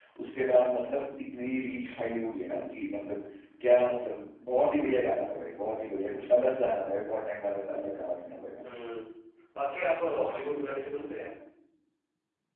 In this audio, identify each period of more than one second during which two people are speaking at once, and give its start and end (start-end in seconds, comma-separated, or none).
none